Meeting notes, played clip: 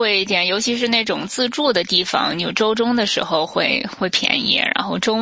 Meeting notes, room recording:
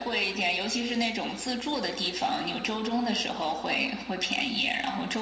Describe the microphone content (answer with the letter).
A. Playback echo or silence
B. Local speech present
A